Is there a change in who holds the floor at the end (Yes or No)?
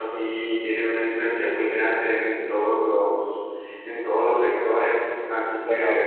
Yes